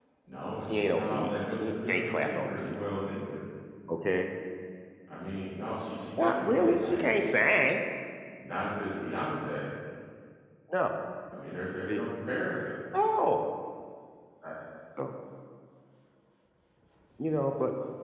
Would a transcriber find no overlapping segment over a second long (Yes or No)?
No